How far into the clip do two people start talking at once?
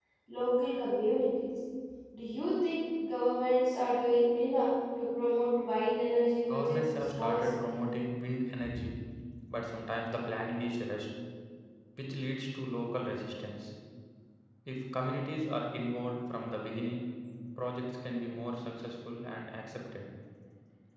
6.5 s

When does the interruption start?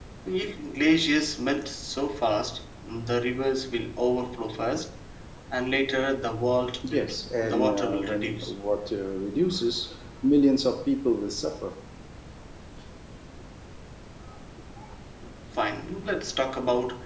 6.8 s

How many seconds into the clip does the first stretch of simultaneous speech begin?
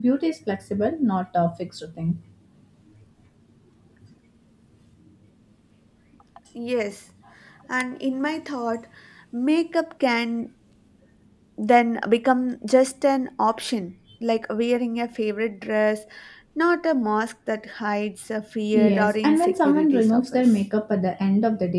18.7 s

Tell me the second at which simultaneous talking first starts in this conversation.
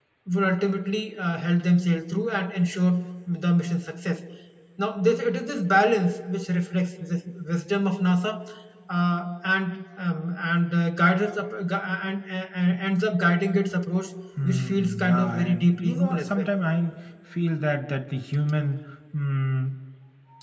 14.4 s

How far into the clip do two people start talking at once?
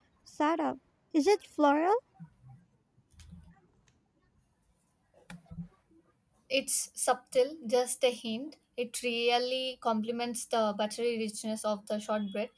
none

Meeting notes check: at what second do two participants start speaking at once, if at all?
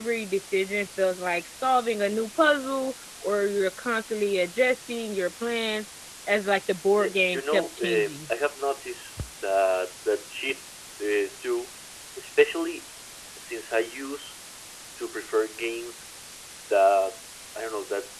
7.0 s

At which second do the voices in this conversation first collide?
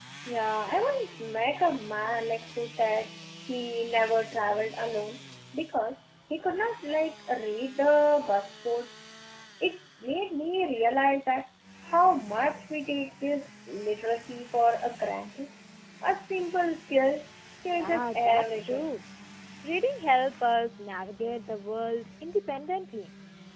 17.7 s

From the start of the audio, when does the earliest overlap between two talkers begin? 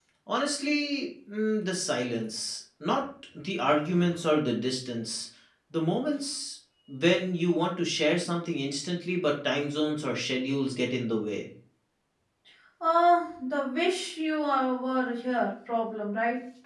none

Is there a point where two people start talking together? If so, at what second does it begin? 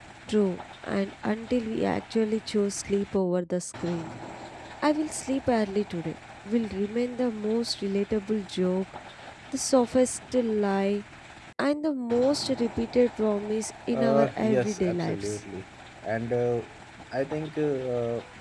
13.9 s

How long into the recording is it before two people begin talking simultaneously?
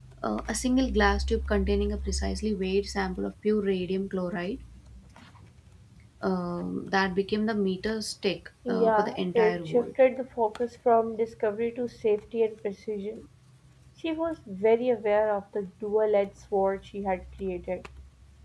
8.7 s

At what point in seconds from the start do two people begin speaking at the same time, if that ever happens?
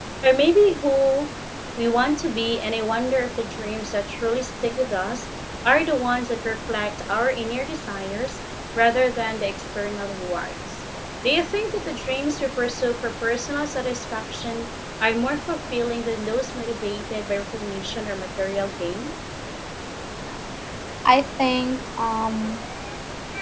none

